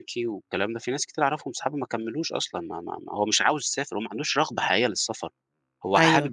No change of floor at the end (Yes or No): Yes